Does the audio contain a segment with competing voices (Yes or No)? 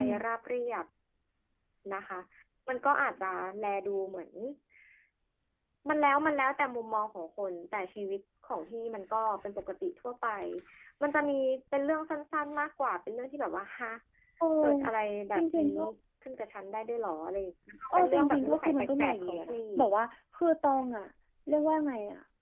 Yes